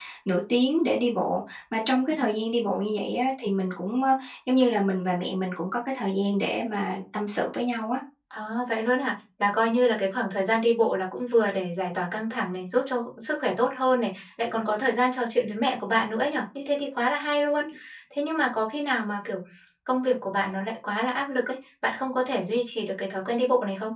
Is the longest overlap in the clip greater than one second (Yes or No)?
No